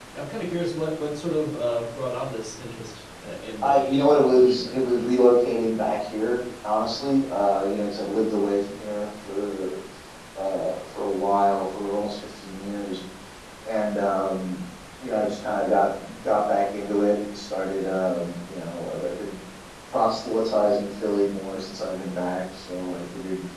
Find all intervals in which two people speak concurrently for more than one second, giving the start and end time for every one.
3.6-5.2

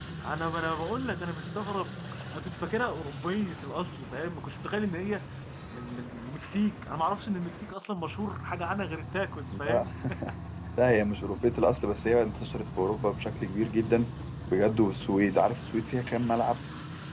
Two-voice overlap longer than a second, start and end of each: none

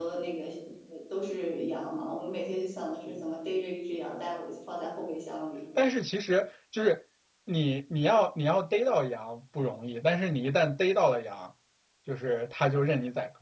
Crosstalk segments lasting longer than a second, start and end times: none

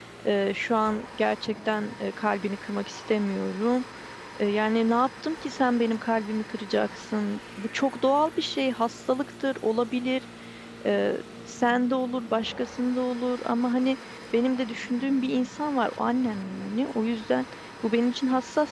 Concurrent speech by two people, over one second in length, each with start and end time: none

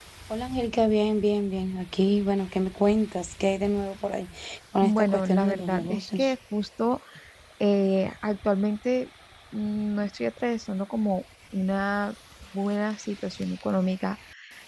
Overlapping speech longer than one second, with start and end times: 4.8-6.3

